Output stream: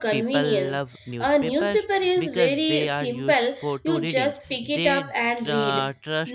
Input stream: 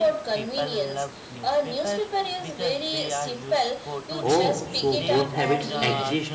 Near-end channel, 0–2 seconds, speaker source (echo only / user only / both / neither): echo only